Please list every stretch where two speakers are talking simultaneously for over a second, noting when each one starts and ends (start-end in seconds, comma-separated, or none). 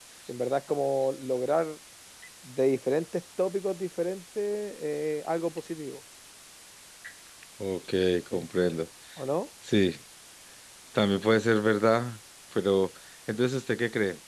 none